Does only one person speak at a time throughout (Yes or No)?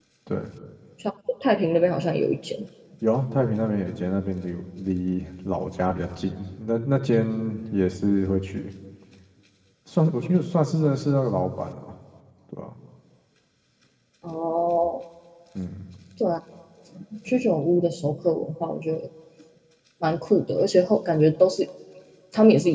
Yes